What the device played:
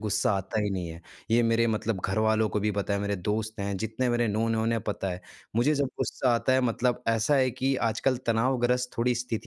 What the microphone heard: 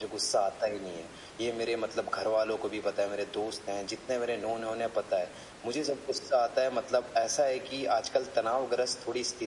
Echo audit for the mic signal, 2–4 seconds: echo only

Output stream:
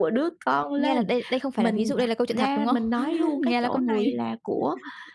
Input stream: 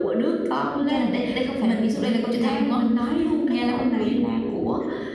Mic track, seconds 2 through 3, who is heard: echo only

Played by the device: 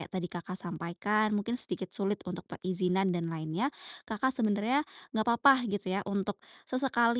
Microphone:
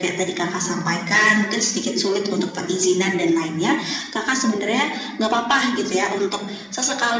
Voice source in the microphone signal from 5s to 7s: echo only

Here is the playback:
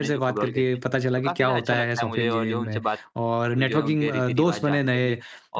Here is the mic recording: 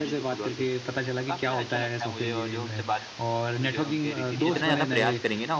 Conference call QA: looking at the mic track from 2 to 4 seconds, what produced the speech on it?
echo only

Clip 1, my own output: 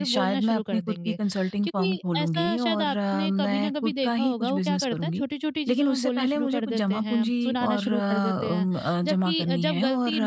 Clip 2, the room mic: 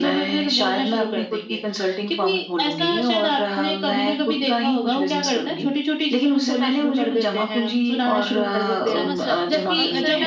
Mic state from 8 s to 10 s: both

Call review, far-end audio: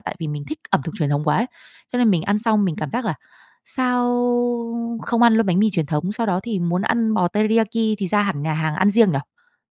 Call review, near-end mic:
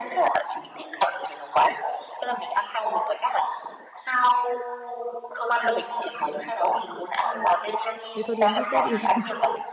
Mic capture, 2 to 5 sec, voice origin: echo only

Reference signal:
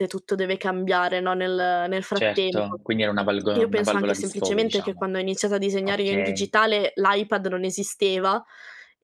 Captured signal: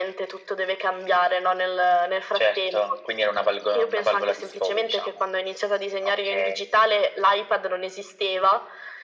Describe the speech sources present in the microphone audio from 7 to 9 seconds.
echo only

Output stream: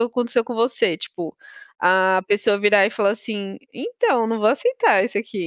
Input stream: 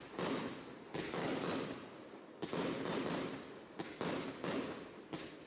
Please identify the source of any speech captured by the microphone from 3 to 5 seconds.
neither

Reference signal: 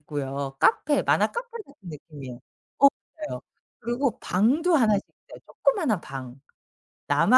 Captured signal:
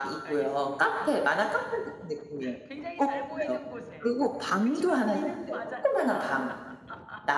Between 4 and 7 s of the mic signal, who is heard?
both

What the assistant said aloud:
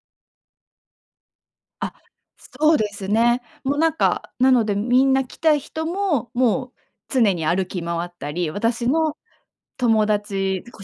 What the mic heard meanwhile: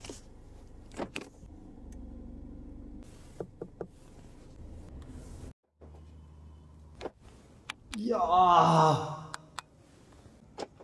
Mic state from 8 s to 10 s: user only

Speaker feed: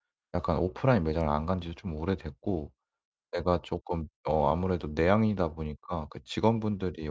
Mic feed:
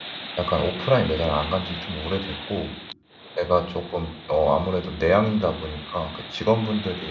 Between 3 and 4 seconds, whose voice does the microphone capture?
echo only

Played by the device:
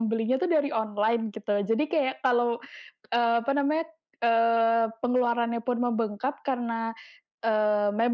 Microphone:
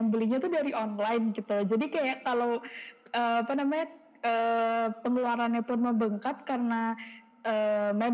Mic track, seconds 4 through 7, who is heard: echo only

